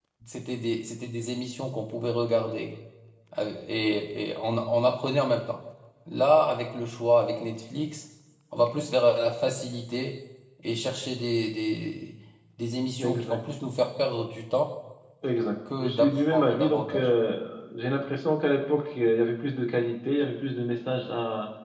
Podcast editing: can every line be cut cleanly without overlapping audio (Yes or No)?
No